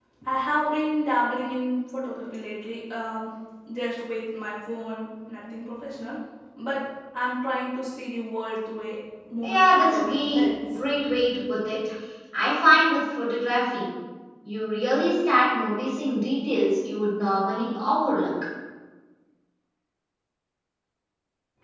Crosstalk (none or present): present